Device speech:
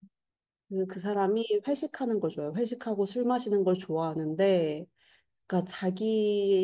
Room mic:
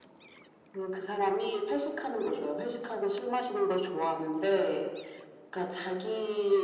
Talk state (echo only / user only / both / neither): echo only